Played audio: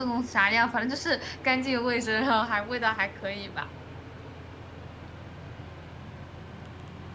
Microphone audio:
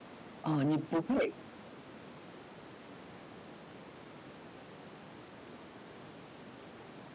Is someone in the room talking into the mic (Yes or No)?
Yes